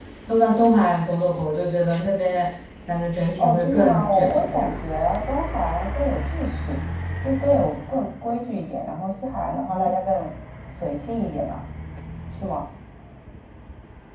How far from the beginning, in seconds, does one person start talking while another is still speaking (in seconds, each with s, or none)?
3.4 s